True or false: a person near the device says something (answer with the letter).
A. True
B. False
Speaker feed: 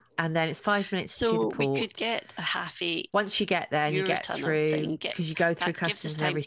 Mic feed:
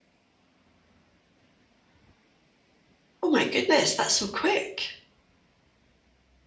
A